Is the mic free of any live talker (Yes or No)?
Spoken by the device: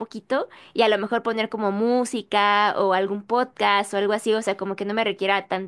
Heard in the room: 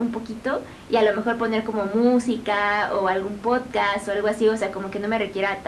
Yes